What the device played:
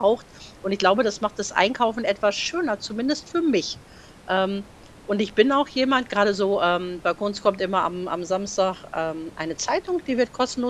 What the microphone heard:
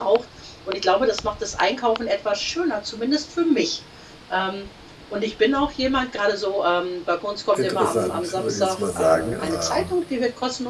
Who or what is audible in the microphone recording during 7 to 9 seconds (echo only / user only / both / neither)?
both